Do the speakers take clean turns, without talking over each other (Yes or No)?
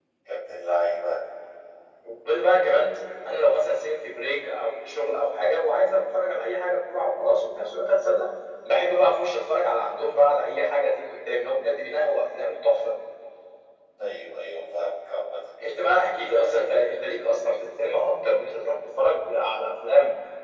Yes